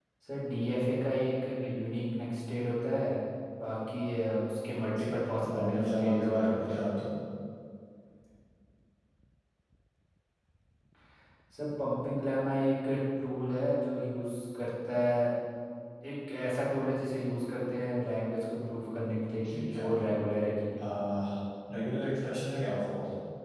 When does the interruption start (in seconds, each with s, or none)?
5.0 s